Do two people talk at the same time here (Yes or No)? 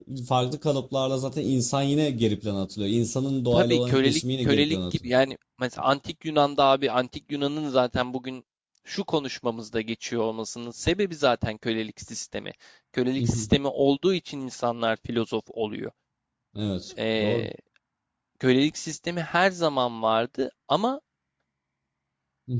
Yes